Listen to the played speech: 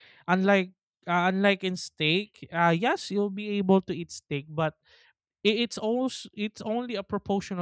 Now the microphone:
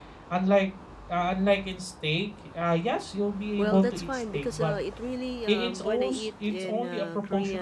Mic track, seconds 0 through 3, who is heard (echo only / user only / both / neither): echo only